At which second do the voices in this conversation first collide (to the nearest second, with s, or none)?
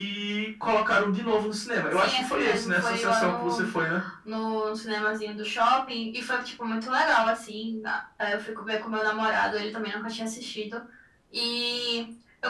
2 s